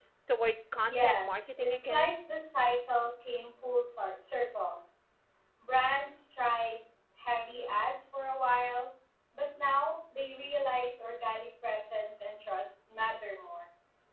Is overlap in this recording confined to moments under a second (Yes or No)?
No